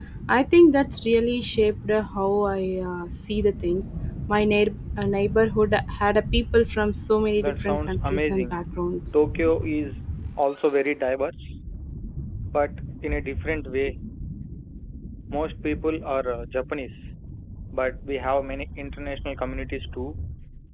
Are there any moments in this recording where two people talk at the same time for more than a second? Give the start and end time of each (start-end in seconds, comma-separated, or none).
7.4-8.6